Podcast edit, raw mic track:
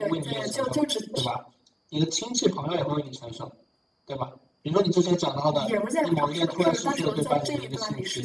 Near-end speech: none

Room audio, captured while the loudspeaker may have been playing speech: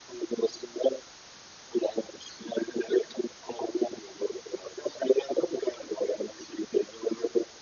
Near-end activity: none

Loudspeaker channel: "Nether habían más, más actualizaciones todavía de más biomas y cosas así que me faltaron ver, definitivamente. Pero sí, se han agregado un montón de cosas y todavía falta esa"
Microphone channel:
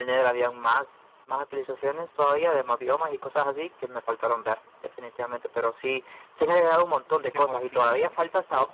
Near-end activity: present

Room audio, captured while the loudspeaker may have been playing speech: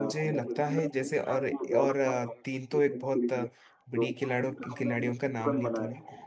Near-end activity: present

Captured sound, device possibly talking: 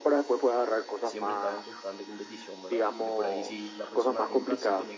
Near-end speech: present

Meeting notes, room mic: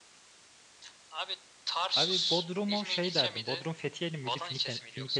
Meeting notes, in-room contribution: present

